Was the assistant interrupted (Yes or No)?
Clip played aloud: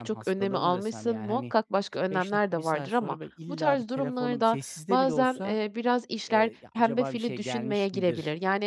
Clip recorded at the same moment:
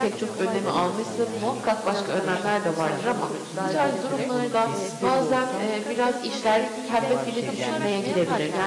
Yes